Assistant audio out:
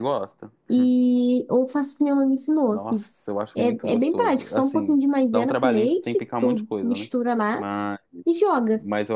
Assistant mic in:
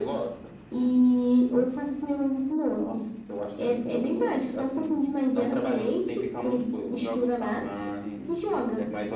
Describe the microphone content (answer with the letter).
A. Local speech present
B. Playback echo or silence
A